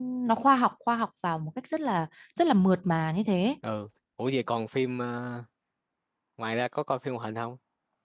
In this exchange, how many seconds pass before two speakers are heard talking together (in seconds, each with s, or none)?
none